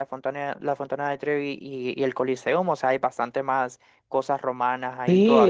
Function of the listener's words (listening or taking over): taking over